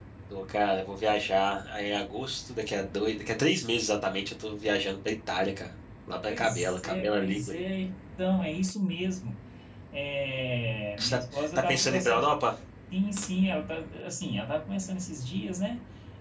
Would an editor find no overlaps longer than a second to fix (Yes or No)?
No